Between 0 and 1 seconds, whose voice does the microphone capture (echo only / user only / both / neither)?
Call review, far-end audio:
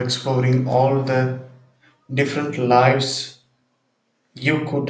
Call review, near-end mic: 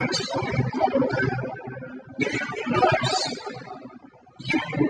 echo only